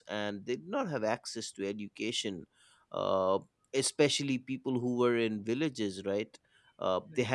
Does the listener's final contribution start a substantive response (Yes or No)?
No